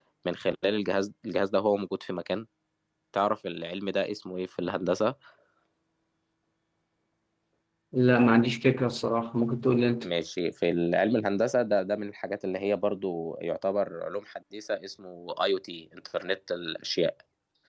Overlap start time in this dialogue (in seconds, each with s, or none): none